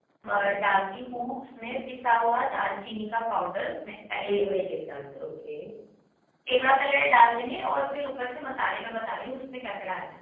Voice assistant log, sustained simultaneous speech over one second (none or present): none